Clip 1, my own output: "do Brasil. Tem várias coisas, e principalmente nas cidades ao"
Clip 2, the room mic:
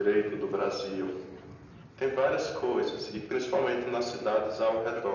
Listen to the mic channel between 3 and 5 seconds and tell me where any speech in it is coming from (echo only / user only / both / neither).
echo only